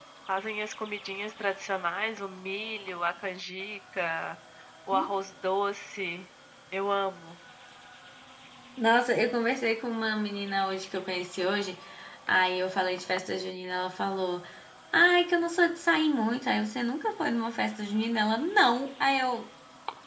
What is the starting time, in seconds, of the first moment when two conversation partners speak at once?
none

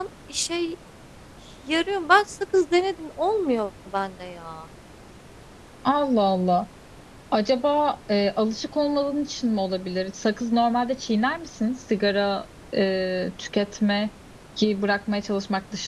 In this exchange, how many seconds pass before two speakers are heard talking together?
none

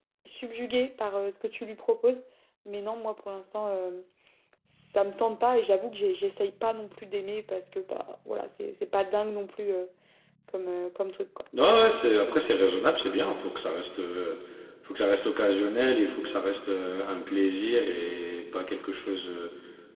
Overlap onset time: none

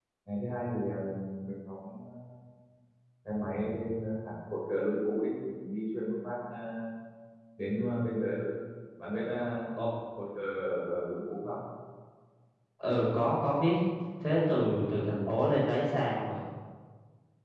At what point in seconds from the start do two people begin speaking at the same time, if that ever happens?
none

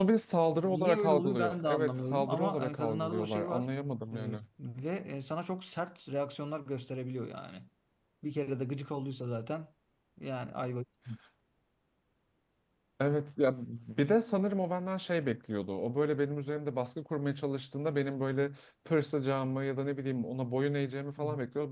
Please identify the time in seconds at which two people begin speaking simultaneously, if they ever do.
0.6 s

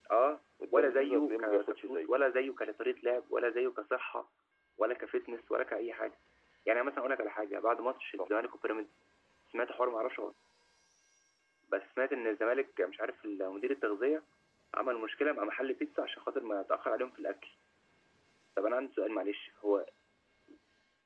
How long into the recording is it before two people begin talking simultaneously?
0.7 s

